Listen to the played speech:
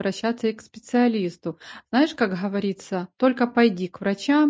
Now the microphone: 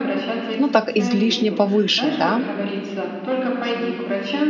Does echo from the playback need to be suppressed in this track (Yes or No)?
Yes